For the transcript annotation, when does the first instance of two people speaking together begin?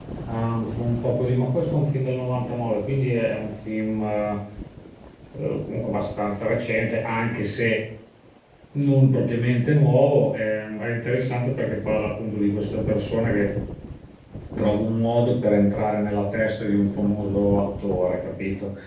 none

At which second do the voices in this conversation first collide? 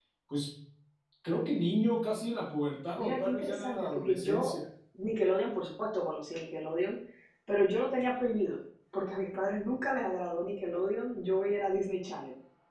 2.9 s

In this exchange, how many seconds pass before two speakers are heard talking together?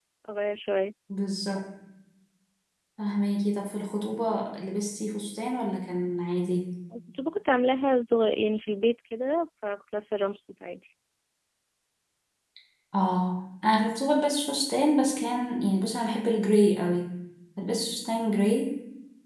none

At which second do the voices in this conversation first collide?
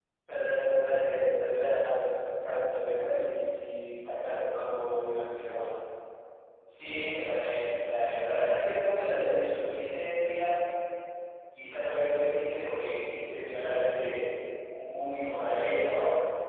none

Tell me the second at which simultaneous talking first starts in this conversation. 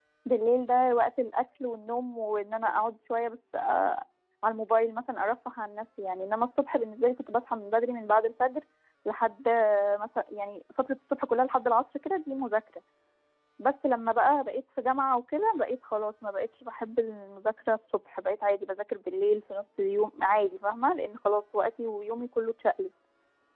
none

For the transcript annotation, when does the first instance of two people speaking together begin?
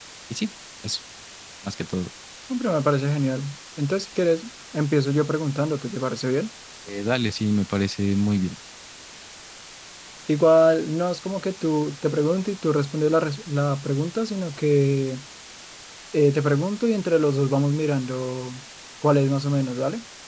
none

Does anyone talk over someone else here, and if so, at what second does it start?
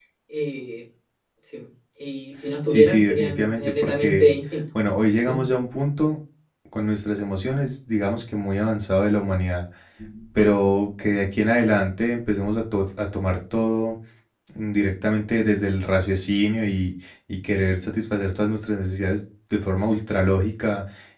2.7 s

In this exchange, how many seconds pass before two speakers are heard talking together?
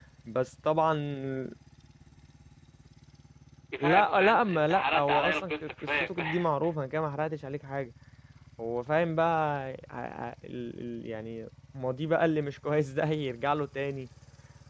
3.8 s

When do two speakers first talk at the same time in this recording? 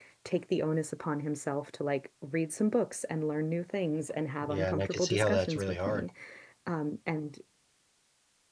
4.4 s

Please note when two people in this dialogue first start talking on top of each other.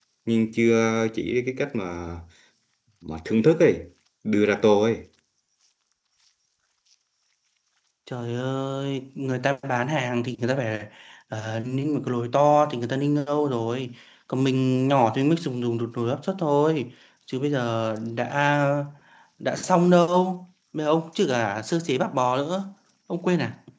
none

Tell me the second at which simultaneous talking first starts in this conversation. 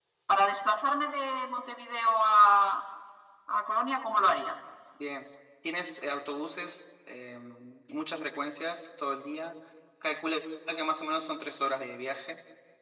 none

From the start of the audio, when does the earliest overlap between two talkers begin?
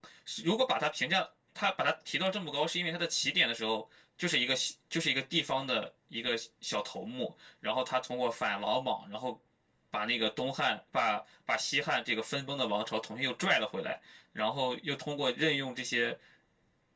none

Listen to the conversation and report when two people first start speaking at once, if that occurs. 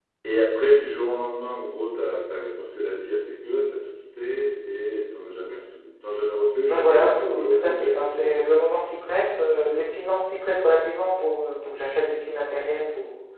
6.7 s

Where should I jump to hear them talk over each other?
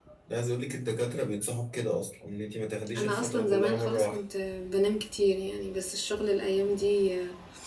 2.9 s

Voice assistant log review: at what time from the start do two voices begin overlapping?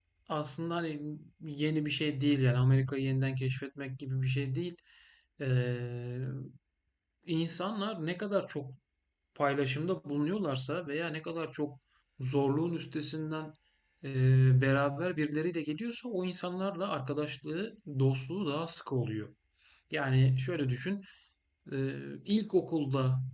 none

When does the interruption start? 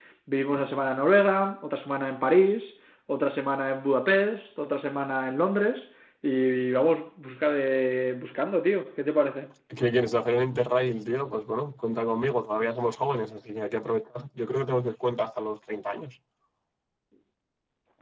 none

